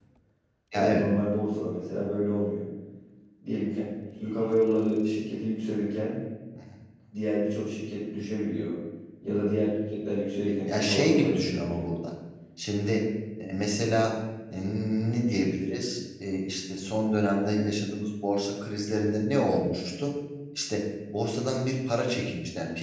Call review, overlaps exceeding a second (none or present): present